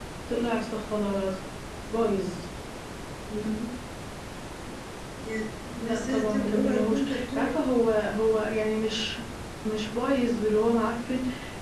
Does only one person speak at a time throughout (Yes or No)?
No